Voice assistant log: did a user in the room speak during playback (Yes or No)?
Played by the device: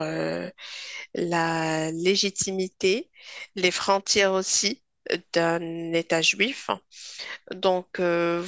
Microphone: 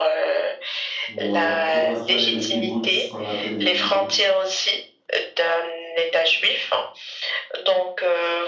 Yes